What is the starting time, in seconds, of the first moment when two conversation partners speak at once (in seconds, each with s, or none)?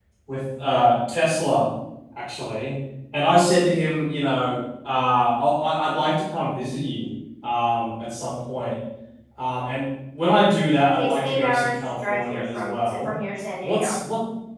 11.0 s